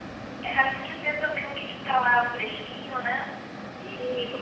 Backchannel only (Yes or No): No